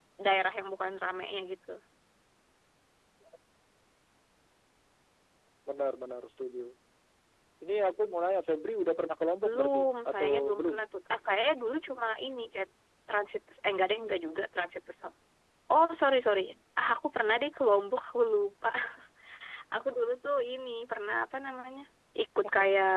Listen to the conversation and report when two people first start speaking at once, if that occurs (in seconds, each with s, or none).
9.4 s